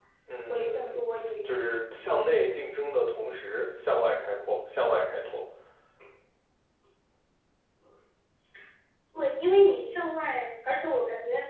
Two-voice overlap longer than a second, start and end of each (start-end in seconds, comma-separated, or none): none